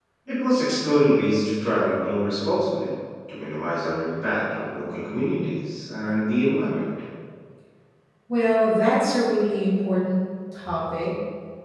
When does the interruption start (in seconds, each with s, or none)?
none